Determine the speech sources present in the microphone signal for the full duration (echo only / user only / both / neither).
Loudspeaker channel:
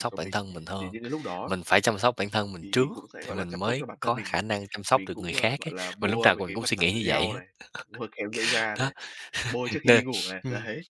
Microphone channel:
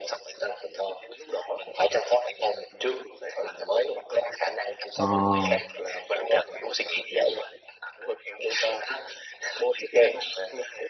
both